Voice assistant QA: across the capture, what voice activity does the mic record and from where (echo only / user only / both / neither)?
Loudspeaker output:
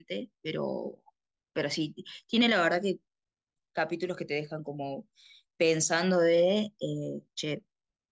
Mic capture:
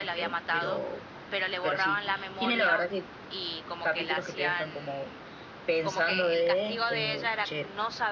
both